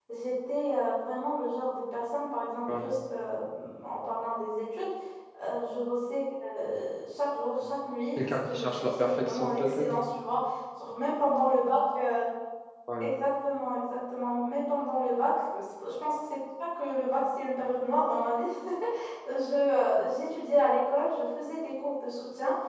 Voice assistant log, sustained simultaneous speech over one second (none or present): present